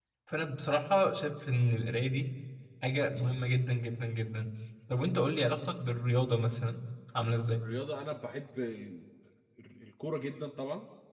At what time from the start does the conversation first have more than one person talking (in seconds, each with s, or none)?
none